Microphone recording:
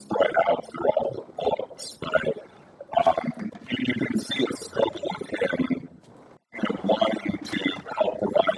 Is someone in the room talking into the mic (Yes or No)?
No